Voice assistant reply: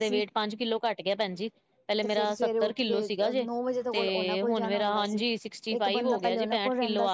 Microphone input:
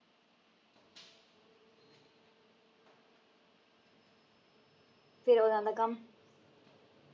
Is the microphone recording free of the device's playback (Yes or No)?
Yes